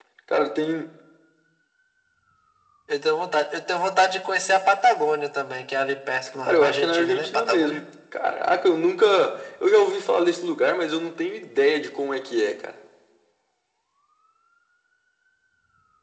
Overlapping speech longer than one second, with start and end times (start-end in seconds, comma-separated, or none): 6.5-7.8